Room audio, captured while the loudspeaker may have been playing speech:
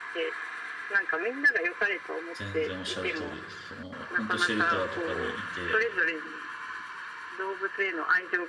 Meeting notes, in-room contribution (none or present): present